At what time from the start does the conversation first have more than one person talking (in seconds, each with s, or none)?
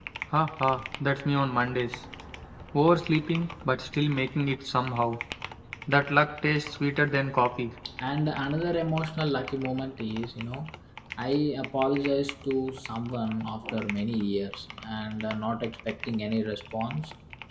none